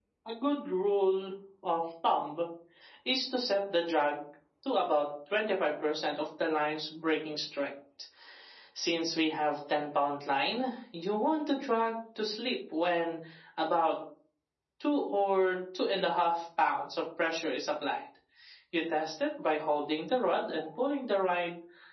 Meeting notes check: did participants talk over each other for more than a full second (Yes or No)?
No